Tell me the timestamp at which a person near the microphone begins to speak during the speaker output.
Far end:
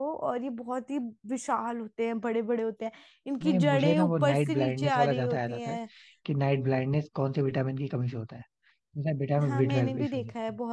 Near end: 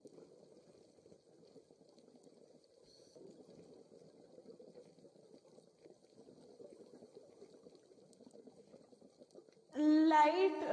9.8 s

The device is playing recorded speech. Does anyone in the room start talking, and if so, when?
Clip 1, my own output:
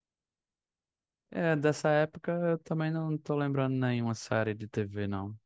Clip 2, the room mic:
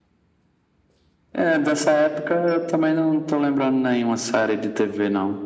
none

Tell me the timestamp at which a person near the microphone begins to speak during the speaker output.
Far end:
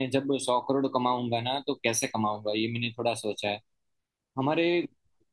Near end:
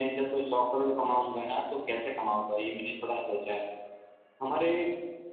none

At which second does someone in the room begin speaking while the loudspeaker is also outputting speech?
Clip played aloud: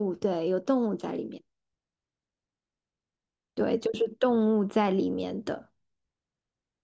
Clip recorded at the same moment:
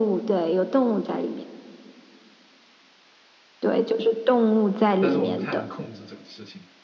5.0 s

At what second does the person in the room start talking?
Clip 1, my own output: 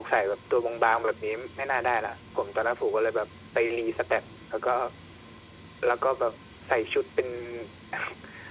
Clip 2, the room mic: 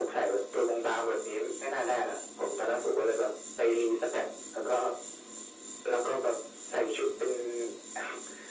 none

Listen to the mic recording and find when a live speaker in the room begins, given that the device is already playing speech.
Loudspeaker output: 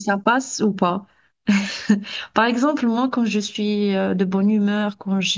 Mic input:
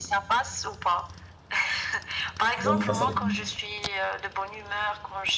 2.6 s

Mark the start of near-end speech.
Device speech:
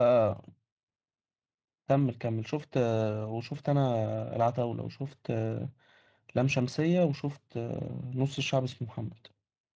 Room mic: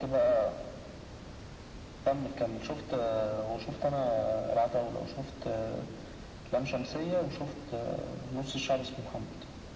none

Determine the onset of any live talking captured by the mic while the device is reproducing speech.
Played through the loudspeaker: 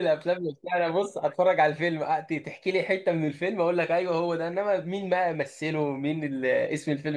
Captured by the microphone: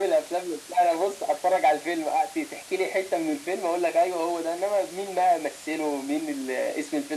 none

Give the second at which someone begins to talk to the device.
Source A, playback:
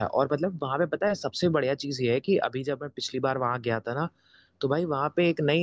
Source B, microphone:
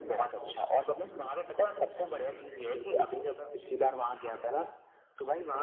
none

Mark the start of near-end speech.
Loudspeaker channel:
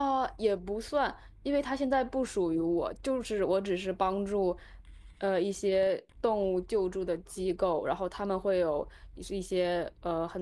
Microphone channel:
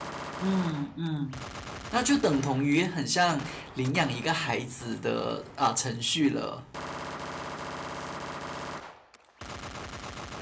0.4 s

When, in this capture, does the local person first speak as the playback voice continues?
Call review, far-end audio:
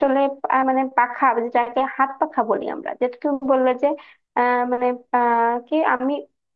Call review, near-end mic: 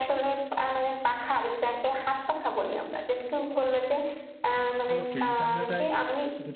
4.9 s

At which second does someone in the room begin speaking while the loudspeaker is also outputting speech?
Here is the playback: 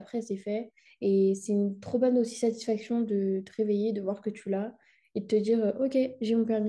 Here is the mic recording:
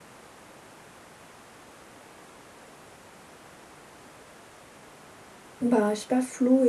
5.6 s

